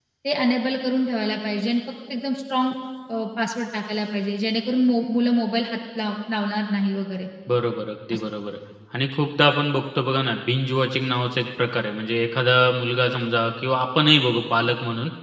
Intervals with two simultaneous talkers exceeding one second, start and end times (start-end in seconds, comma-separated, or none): none